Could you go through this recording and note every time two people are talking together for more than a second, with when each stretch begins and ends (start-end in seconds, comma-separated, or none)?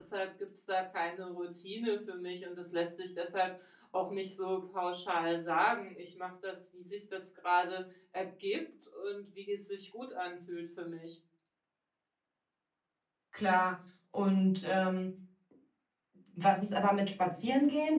none